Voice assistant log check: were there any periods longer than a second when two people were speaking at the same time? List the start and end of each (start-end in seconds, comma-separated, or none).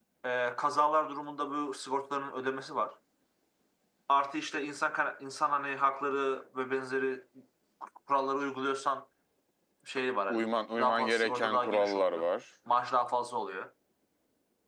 10.3-12.3